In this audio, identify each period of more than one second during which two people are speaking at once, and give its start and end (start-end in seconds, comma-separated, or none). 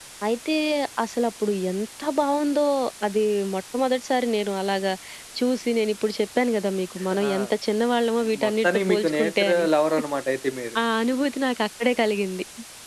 8.3-9.7